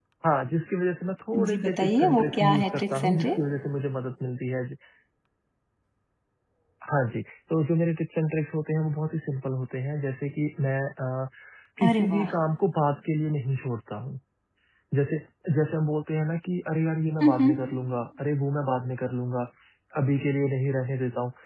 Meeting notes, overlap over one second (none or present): present